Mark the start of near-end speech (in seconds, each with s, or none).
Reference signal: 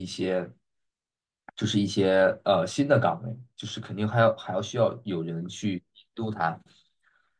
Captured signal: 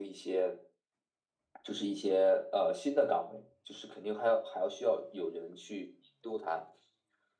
none